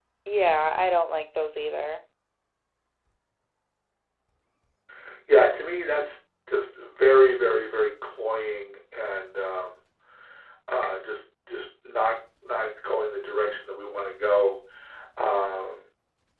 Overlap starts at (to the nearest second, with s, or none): none